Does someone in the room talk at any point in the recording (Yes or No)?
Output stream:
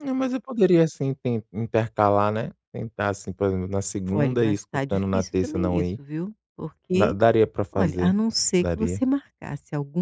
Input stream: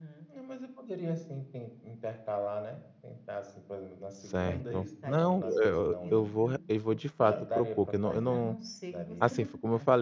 Yes